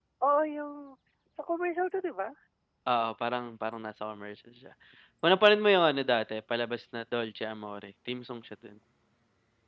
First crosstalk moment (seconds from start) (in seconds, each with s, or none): none